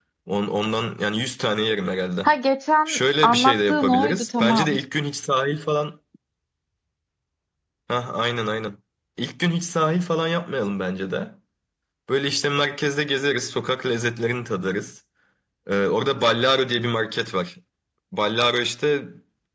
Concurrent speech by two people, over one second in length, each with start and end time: 2.9-4.8

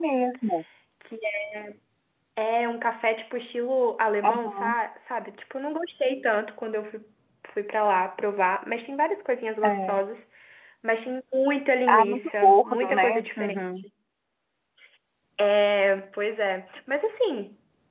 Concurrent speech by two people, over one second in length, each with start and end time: 11.9-13.6

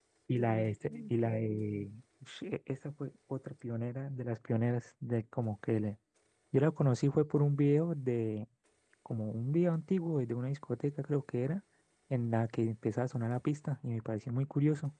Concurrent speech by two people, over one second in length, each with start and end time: none

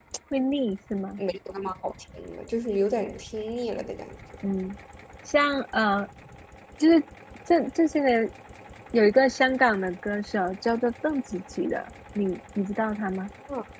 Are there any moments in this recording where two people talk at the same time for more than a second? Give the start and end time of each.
none

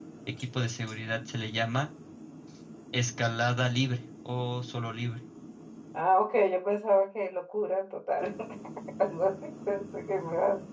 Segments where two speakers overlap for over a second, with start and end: none

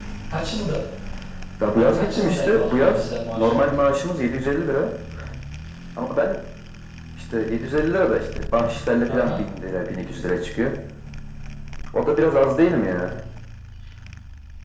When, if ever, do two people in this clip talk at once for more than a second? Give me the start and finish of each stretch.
1.7-3.6

